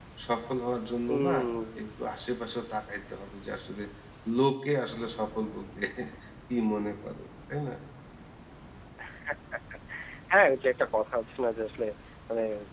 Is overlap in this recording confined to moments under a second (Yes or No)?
Yes